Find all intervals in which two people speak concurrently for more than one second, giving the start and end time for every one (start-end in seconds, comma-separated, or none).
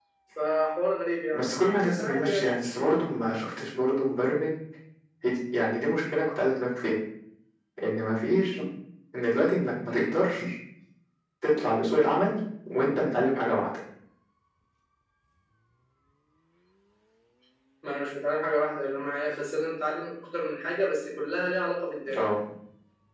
1.3-2.9